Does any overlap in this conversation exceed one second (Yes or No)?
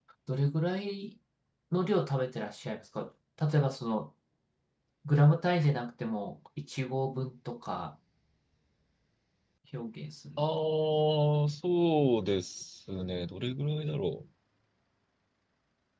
No